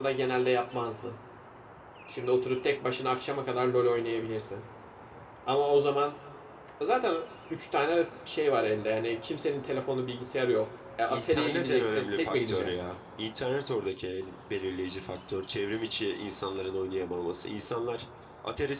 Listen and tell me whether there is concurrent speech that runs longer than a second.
Yes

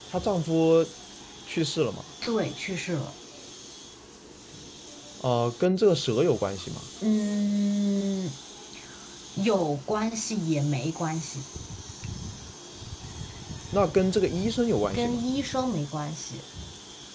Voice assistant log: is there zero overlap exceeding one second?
Yes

